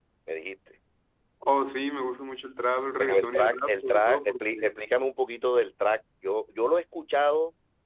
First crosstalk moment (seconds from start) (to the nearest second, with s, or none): 3 s